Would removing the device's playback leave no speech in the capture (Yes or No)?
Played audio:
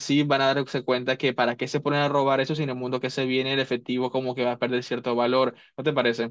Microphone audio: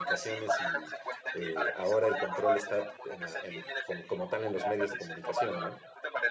No